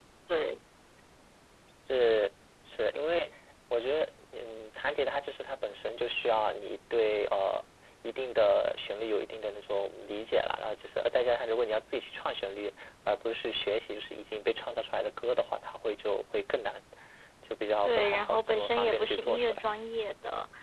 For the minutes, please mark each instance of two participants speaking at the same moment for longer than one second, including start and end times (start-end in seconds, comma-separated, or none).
17.9-19.6